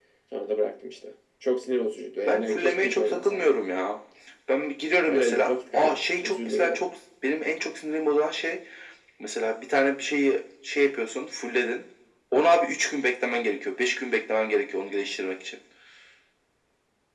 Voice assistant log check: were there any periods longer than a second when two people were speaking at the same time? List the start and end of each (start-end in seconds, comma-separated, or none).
2.3-3.5, 5.1-6.8